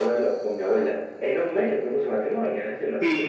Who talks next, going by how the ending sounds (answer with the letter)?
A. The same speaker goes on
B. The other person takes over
B